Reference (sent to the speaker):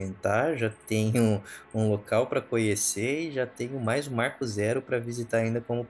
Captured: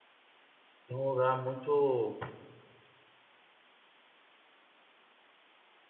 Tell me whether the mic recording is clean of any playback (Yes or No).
Yes